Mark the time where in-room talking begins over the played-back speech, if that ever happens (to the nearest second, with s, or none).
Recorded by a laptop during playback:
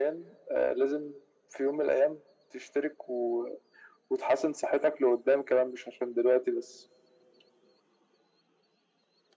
none